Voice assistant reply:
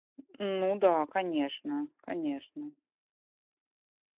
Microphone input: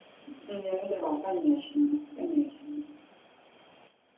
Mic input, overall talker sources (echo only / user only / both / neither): echo only